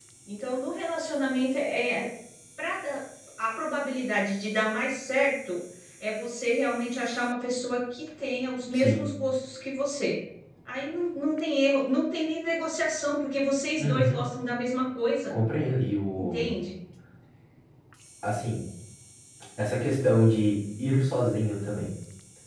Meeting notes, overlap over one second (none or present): none